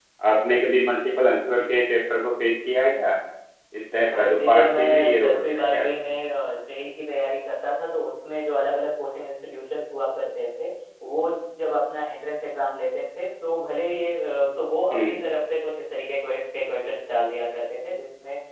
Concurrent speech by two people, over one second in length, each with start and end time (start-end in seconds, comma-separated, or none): 4.1-5.8